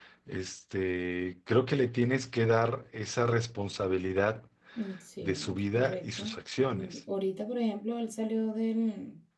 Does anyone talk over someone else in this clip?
Yes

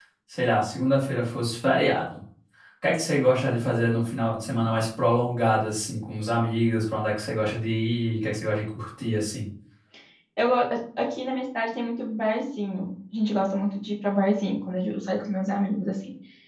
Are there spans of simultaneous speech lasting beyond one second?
No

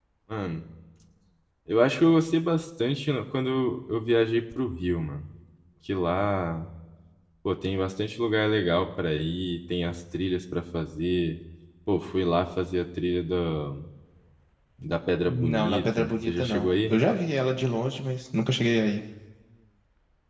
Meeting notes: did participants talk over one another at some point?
Yes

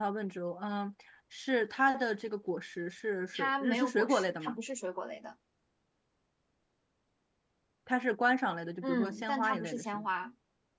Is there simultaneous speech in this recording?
Yes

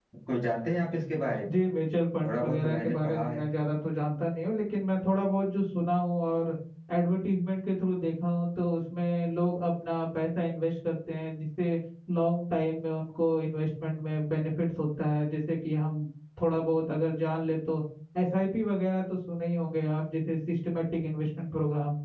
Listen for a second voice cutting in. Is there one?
Yes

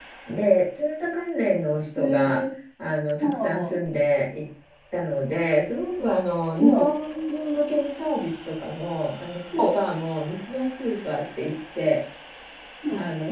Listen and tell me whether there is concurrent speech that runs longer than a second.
No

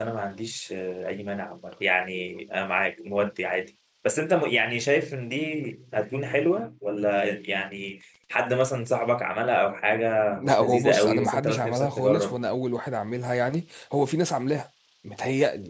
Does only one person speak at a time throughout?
No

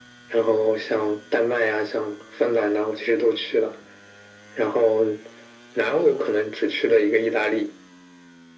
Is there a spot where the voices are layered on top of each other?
No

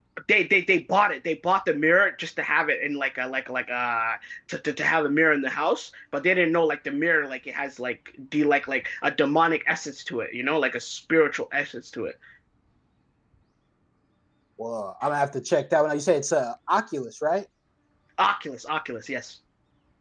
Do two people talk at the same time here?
No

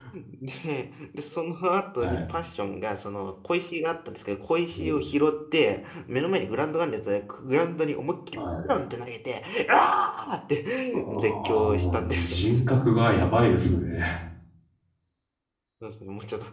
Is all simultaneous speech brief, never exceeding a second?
No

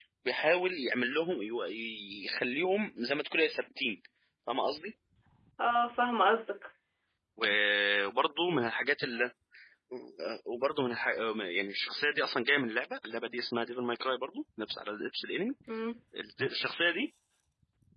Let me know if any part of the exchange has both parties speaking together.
No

